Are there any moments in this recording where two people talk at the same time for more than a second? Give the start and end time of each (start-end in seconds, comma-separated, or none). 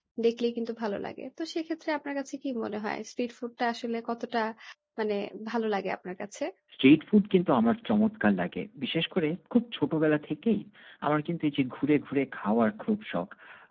none